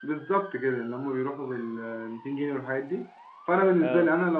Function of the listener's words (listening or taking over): listening